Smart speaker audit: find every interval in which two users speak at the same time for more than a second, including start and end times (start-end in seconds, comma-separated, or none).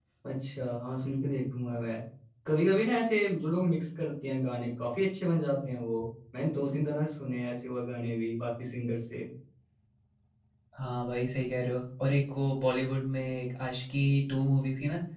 none